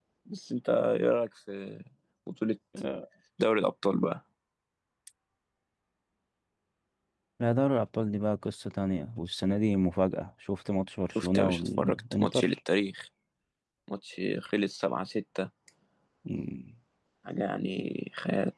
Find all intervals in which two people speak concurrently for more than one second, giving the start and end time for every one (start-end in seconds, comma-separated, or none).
11.1-12.6